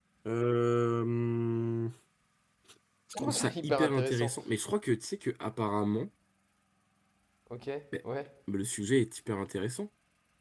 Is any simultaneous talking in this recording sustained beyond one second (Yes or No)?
Yes